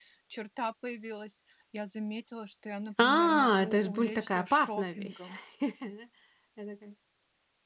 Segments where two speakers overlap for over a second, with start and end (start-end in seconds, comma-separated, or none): 3.0-5.2